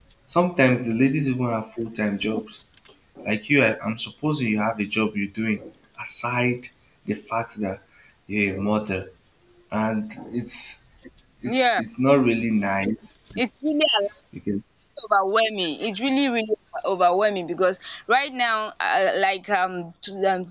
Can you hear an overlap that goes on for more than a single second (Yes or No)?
No